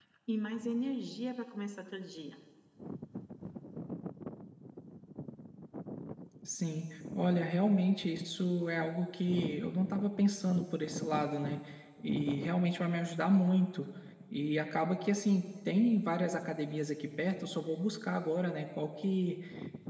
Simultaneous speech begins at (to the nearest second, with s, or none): none